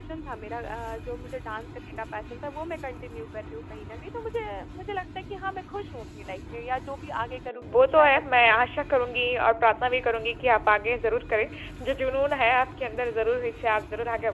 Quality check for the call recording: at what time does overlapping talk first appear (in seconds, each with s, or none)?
7.5 s